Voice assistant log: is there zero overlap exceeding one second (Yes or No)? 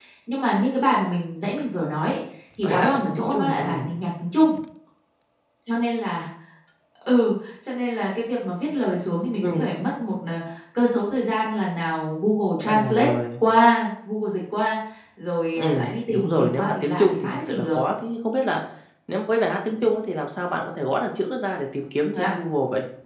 No